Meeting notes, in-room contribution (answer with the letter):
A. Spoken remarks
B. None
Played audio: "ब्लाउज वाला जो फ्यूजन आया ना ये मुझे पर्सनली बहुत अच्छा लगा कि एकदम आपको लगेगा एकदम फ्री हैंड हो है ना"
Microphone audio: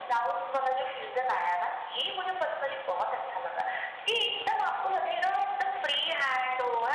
B